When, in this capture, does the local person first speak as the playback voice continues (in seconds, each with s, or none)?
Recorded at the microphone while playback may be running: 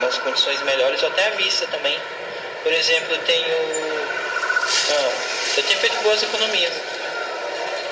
none